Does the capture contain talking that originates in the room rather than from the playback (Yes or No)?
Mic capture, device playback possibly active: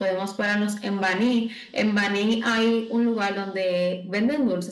No